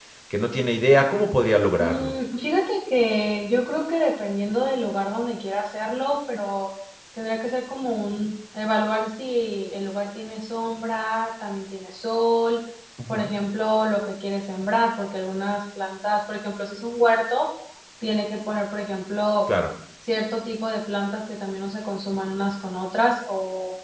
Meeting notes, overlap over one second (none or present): none